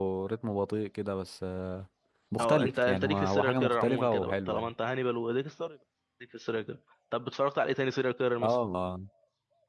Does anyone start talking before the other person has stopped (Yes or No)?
Yes